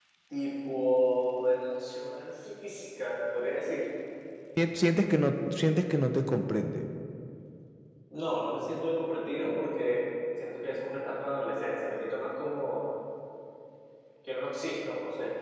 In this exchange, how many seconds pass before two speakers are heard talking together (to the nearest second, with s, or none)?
none